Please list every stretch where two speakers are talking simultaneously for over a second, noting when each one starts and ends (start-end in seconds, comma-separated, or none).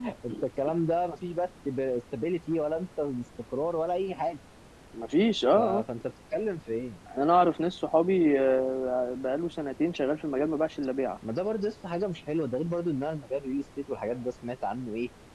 none